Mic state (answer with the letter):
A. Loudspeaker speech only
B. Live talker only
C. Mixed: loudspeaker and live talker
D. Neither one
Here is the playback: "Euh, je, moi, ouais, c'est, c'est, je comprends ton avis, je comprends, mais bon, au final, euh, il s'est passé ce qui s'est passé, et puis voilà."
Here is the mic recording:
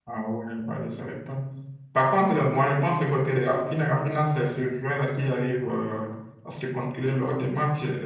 B